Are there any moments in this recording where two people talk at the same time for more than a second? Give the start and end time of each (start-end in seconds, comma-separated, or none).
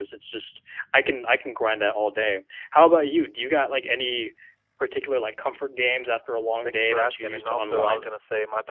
6.6-8.1